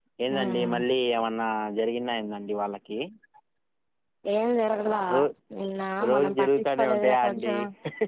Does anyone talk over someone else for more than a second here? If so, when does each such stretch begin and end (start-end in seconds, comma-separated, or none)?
6.1-7.5